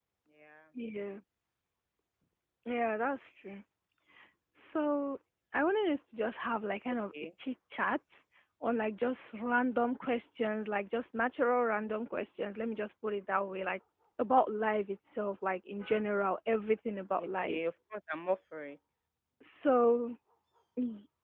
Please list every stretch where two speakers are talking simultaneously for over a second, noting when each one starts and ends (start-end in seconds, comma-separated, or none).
none